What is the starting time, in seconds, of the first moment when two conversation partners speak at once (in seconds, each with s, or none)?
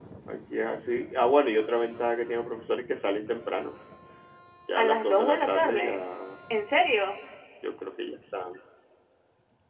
4.8 s